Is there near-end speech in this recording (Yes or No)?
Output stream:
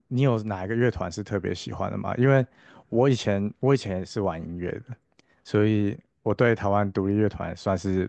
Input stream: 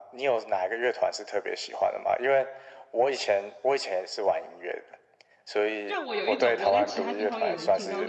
Yes